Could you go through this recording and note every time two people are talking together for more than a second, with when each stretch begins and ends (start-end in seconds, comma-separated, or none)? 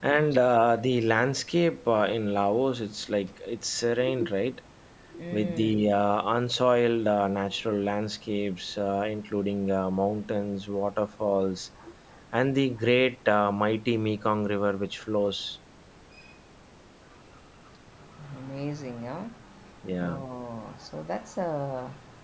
none